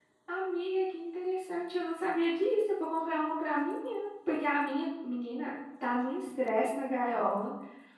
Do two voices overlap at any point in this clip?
No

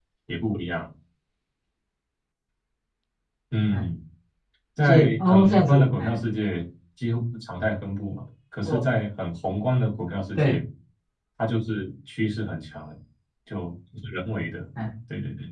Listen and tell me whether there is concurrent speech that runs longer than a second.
Yes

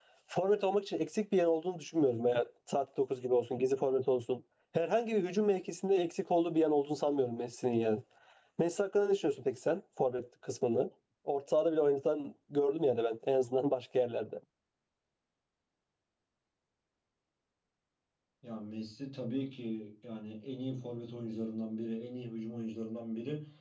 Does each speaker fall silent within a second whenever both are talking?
Yes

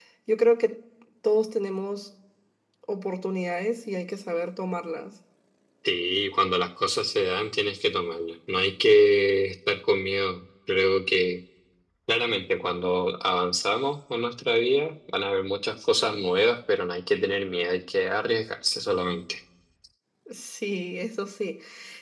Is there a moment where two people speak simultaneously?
No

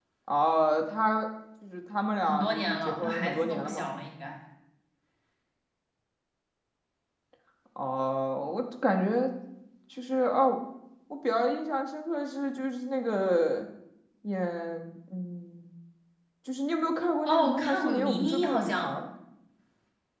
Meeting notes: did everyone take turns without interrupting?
No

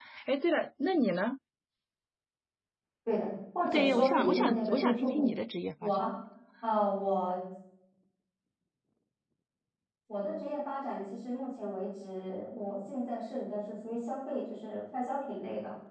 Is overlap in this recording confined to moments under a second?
No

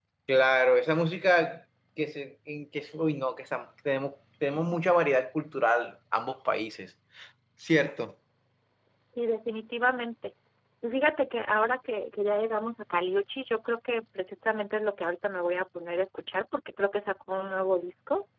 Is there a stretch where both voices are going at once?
No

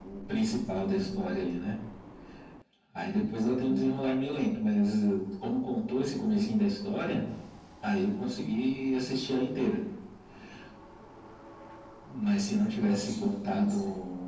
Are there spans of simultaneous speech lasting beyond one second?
Yes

